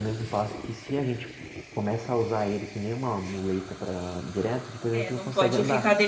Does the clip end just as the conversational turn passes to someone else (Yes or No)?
Yes